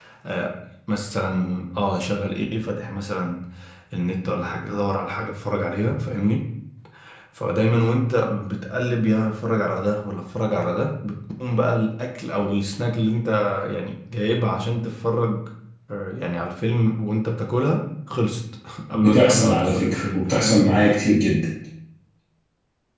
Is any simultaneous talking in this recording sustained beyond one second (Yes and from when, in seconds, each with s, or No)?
Yes, from 18.9 s